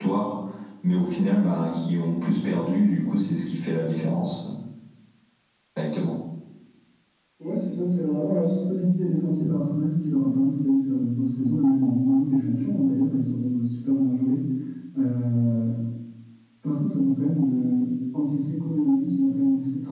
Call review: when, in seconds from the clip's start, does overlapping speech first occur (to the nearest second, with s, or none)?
none